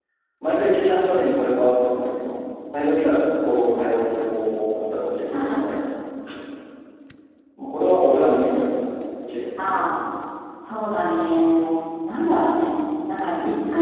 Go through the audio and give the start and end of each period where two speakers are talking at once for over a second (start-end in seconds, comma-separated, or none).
none